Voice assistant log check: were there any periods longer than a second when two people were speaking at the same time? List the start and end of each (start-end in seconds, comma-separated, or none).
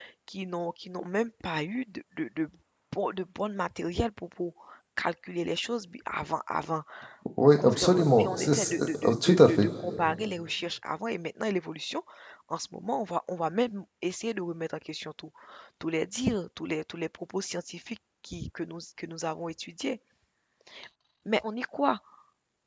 7.6-9.7